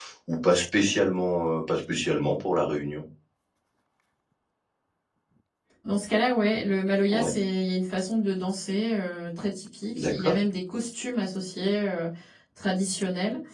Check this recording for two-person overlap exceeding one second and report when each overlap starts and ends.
none

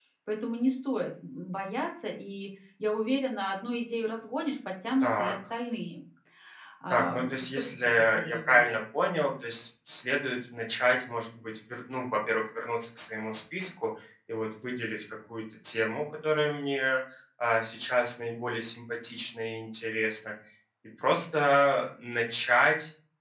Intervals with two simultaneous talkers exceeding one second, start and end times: 6.9-8.7

